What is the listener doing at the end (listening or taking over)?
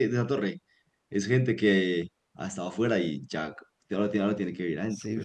taking over